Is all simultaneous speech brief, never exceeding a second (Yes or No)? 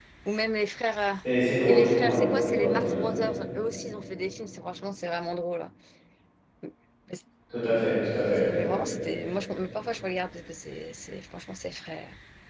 No